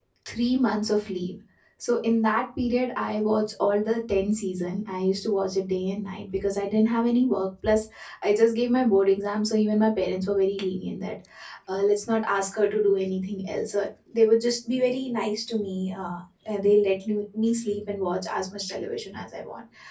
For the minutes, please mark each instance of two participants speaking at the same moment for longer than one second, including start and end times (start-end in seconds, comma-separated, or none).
none